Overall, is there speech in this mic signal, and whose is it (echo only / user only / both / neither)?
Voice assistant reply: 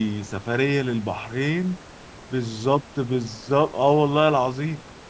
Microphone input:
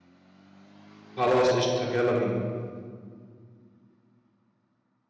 user only